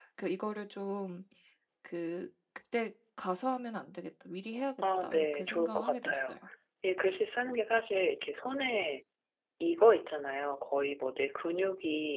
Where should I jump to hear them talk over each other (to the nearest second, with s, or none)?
5 s